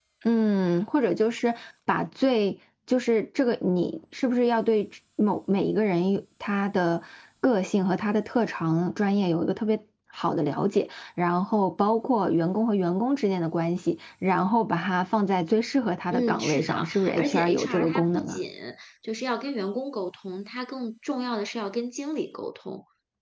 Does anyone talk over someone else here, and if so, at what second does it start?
16 s

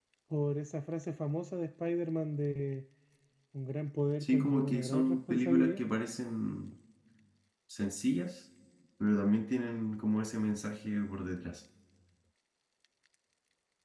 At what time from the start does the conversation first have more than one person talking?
4 s

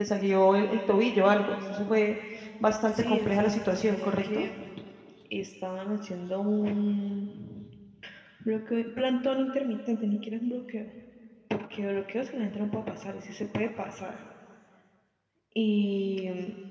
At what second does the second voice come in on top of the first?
3 s

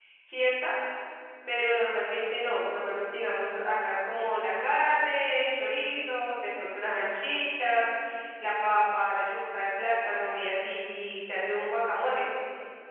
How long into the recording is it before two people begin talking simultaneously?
none

